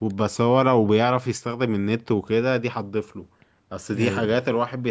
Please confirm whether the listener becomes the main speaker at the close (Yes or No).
No